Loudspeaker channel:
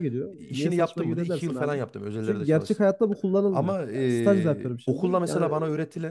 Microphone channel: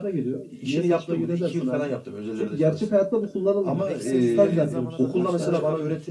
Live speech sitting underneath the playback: Yes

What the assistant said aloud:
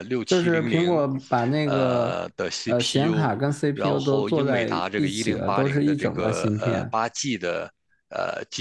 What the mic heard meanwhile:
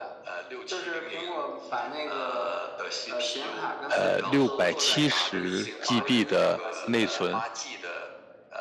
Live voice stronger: Yes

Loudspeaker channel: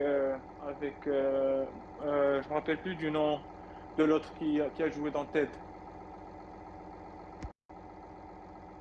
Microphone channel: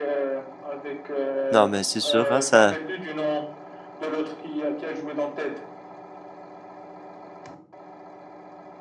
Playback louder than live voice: No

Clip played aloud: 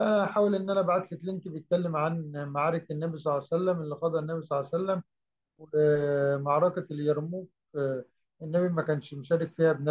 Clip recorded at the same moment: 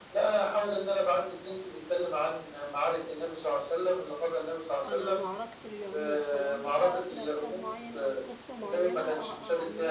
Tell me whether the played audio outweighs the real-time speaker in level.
Yes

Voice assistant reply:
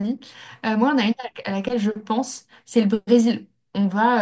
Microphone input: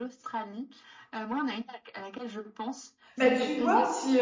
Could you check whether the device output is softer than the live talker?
Yes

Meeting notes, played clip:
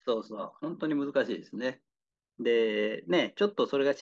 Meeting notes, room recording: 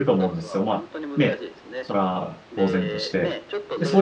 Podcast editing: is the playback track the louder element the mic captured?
No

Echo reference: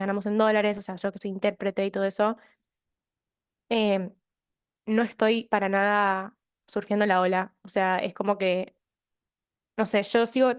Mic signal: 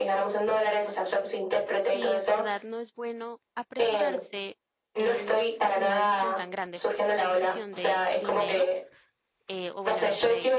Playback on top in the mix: Yes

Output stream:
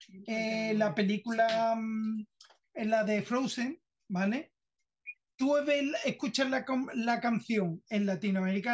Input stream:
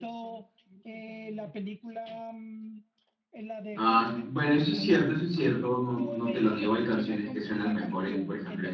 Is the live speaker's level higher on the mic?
Yes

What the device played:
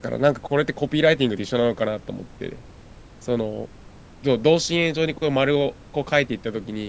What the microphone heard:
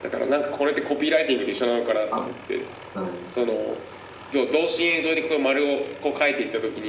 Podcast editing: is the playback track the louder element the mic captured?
Yes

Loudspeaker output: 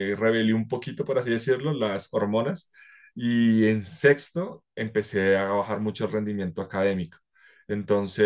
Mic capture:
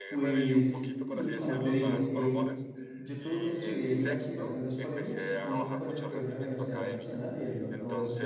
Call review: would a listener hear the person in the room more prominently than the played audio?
Yes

